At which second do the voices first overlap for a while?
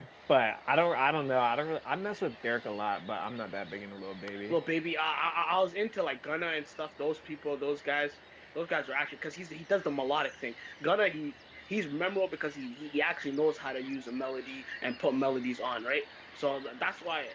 none

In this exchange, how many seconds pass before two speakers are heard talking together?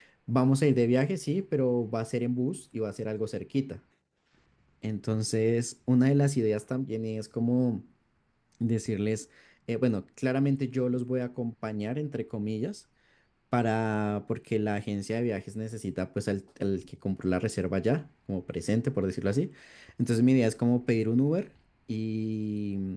none

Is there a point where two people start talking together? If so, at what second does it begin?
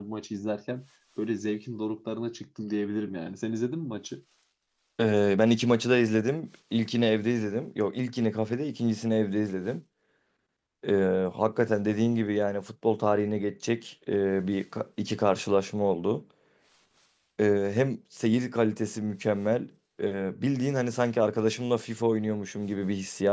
none

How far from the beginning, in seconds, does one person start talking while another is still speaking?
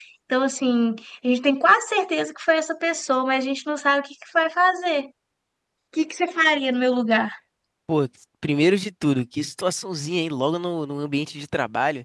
none

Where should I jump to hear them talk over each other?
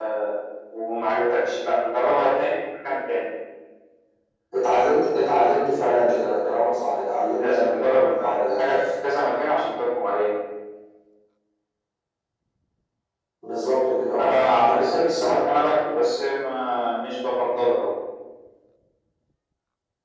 7.4 s

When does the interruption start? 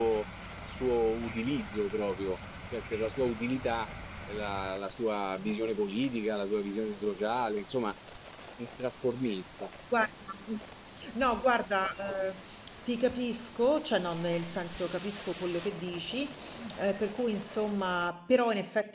none

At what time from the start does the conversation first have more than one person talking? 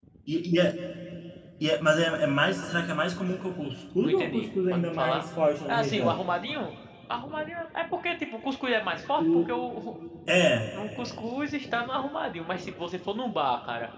4.0 s

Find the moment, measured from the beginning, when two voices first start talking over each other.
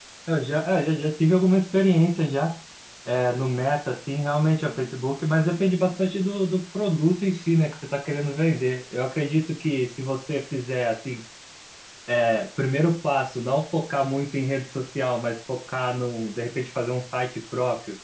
none

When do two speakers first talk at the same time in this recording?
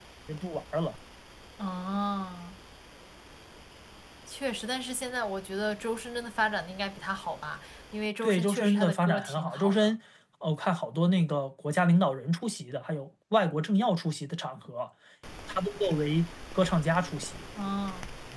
8.2 s

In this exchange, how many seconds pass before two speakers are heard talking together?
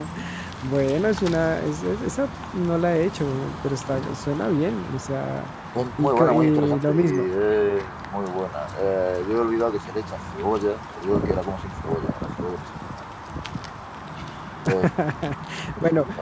6.0 s

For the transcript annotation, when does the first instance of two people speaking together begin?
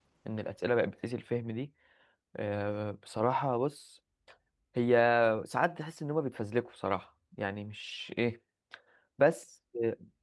none

